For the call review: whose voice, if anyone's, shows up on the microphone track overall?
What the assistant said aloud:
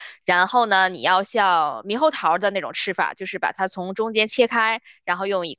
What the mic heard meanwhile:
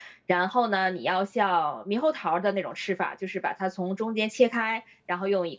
echo only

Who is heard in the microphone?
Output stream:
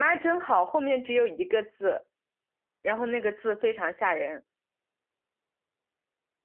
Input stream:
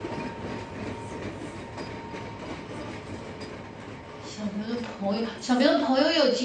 user only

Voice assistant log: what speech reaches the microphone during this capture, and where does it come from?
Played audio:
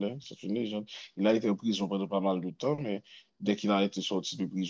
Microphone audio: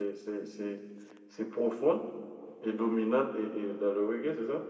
user only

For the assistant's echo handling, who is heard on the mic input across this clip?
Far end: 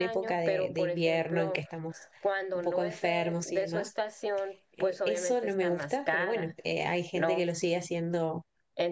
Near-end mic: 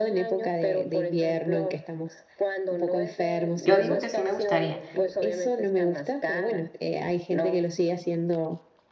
both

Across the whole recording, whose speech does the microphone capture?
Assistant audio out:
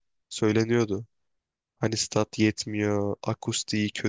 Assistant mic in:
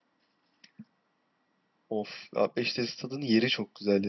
user only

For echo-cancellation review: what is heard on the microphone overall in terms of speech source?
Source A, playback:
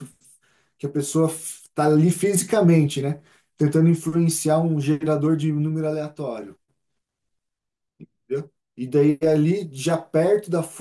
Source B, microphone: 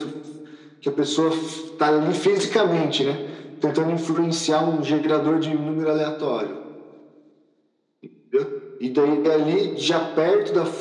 echo only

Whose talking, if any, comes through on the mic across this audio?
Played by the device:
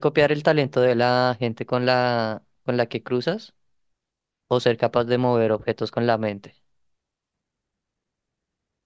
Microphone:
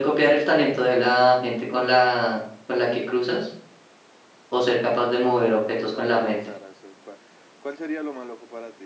both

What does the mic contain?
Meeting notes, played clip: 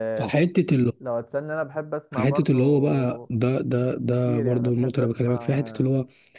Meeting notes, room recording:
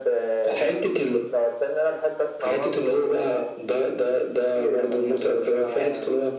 echo only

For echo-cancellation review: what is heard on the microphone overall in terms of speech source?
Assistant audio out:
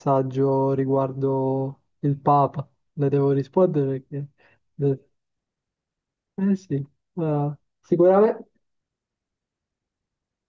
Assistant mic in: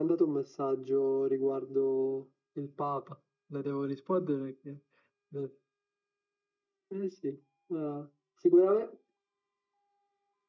echo only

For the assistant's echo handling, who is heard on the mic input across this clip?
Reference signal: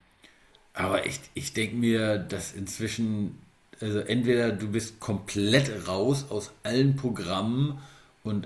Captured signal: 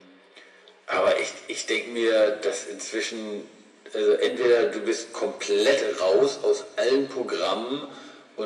echo only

